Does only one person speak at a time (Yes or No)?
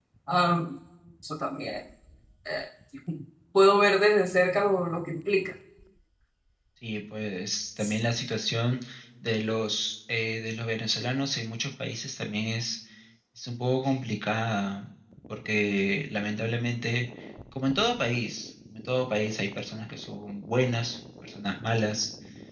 Yes